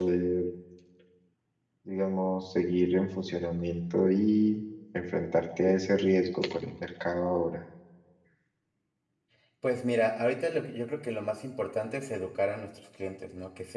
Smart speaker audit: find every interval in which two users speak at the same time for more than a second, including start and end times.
none

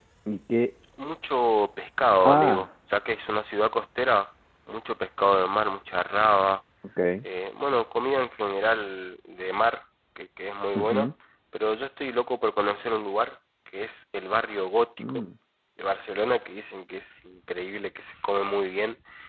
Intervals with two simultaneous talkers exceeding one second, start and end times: none

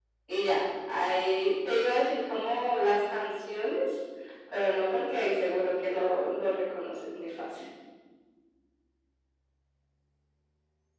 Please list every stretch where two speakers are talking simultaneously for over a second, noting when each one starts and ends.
none

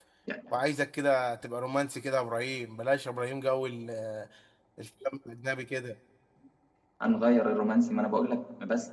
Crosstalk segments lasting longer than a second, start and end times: none

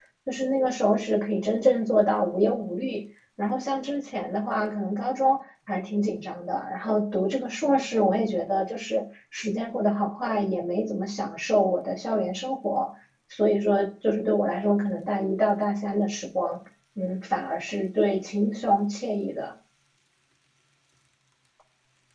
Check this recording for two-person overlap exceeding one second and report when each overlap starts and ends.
none

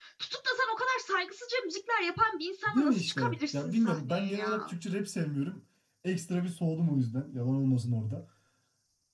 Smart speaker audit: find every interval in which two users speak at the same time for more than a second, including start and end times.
2.7-4.7

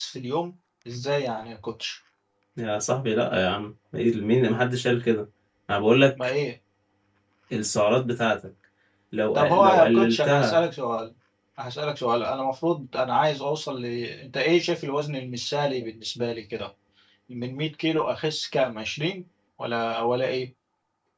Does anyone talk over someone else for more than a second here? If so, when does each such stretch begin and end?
9.3-10.6

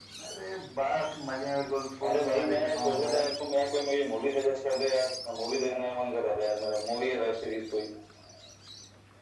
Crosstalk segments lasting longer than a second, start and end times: 2.0-3.2

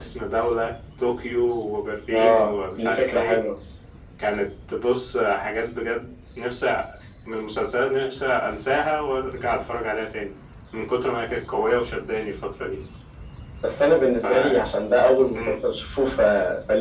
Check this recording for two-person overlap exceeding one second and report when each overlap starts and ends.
2.1-3.4

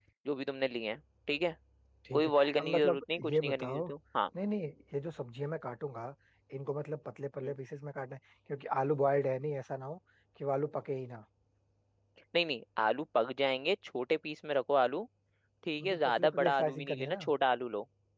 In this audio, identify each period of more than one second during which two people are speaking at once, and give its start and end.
2.1-3.8, 15.8-17.2

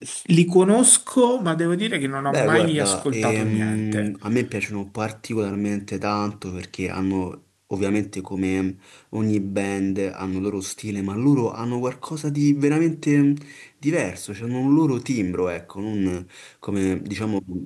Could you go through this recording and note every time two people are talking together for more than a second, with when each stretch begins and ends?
2.3-4.1

